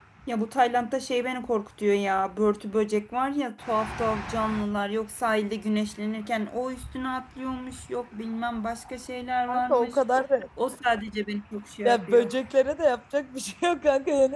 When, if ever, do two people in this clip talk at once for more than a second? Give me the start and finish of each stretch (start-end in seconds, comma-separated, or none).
none